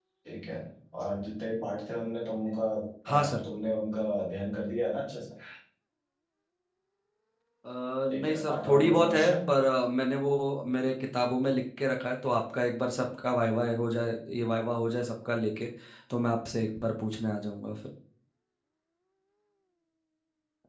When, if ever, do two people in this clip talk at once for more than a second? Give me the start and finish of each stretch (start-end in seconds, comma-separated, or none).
8.1-9.4